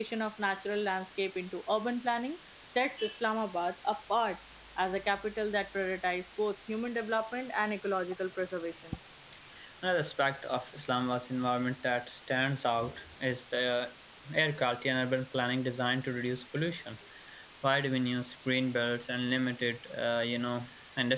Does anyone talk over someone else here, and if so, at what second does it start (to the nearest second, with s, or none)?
none